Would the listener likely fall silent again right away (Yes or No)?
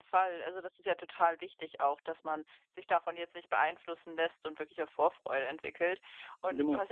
Yes